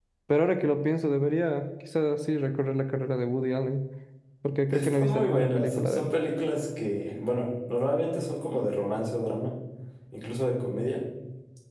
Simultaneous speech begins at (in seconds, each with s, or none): 4.7 s